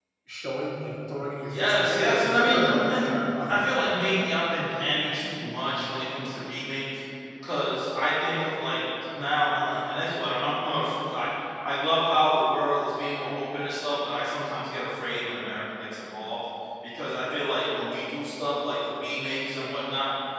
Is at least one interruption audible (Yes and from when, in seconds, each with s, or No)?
Yes, from 1.5 s